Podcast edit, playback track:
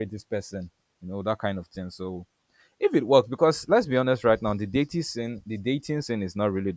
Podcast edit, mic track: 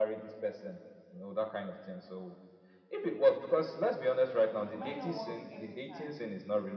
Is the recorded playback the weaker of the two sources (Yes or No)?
No